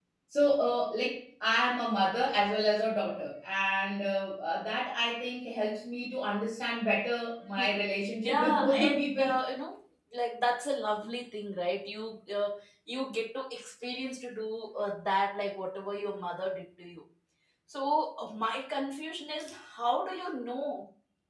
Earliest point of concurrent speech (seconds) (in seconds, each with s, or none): 7.6 s